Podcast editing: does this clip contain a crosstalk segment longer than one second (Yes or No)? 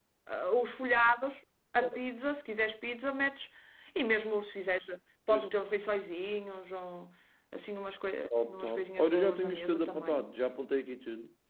Yes